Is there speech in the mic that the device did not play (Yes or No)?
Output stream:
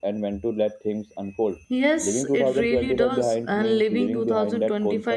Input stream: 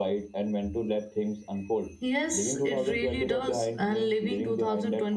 No